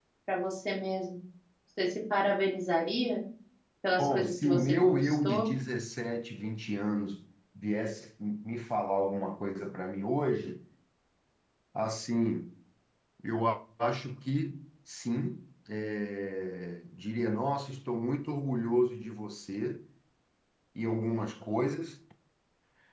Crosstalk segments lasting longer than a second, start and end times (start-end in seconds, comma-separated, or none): 4.0-5.5